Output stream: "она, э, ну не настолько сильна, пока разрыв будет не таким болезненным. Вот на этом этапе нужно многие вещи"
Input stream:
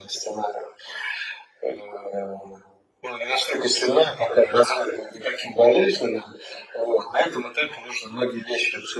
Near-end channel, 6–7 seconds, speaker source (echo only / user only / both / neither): echo only